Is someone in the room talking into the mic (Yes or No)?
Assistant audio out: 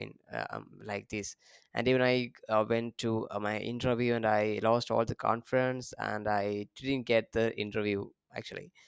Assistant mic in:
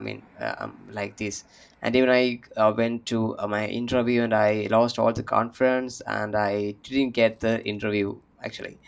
No